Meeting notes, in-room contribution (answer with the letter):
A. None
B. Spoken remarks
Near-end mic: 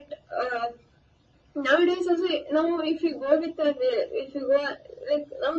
A